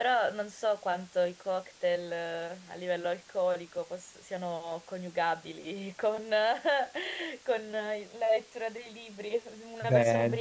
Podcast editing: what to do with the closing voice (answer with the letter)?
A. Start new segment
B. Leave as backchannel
B